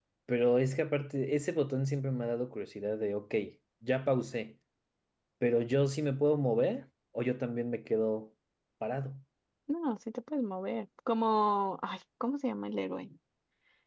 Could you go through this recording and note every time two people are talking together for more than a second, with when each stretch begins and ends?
none

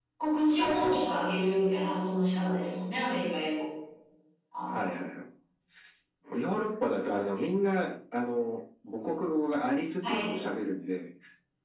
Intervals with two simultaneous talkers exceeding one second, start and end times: none

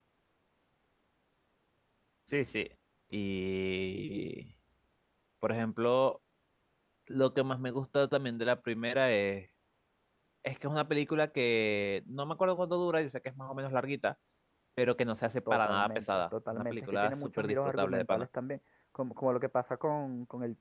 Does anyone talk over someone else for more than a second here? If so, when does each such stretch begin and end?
15.5-18.3

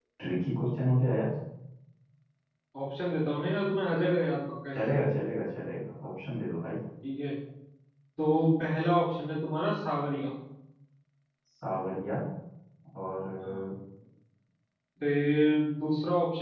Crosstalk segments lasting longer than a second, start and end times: none

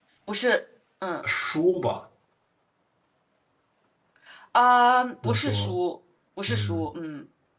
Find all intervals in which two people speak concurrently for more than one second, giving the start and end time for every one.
none

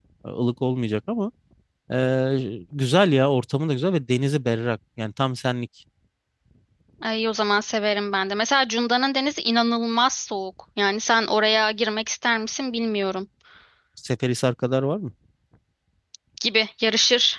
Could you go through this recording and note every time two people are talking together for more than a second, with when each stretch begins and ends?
none

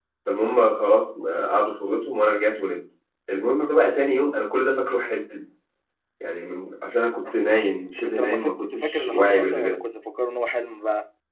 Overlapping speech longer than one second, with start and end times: 8.0-9.8

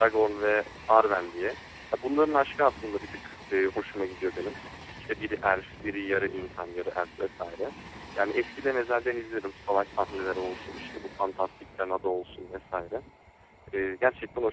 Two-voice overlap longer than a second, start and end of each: none

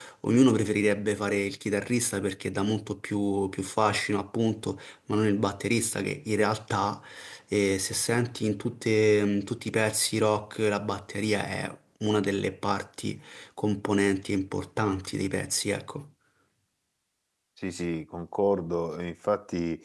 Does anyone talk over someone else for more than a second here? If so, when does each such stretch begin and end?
none

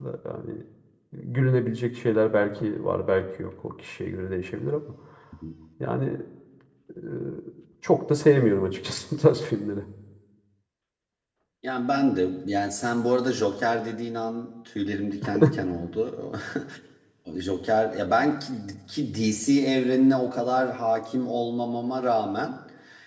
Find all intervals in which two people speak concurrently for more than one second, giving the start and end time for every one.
none

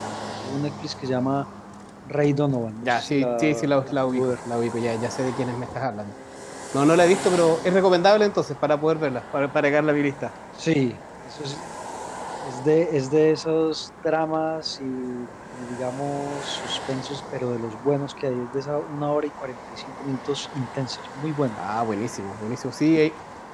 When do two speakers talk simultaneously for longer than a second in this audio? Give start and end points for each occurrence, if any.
2.8-4.3

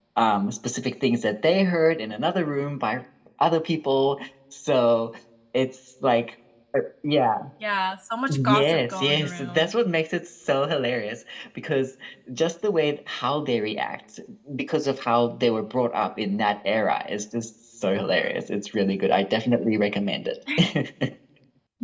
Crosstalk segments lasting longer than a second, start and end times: 8.3-9.7

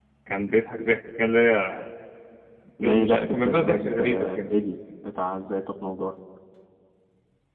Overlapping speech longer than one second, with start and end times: 2.8-4.5

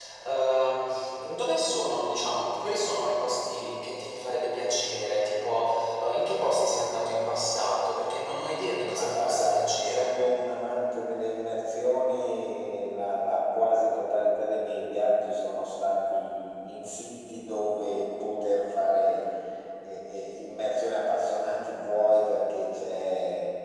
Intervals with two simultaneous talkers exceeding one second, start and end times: 8.9-10.2

